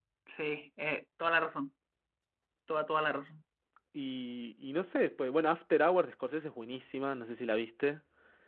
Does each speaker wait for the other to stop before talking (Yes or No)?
Yes